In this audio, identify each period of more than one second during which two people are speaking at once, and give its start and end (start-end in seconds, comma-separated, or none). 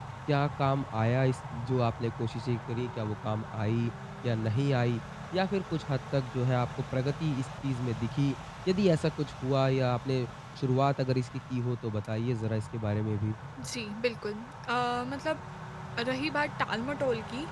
none